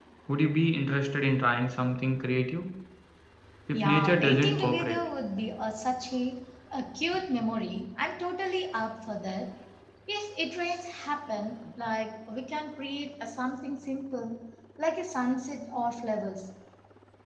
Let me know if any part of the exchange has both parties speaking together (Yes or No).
Yes